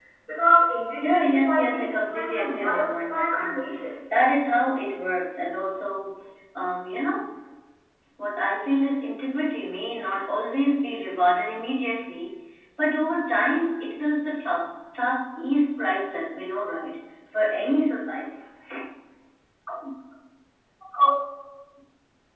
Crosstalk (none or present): present